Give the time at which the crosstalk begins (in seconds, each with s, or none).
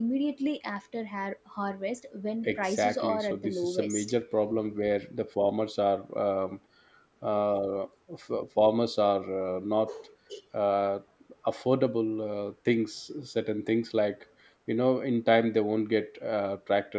2.4 s